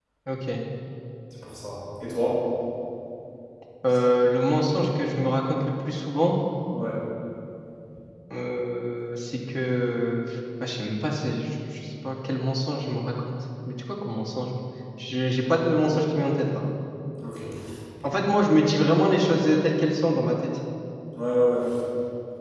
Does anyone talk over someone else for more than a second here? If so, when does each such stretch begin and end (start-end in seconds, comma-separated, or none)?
none